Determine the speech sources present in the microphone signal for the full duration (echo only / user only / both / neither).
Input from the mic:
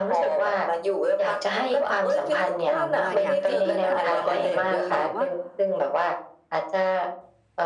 both